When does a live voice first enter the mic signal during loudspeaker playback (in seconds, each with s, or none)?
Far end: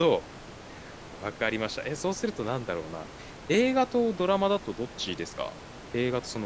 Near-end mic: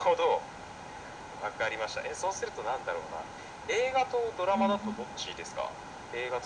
4.5 s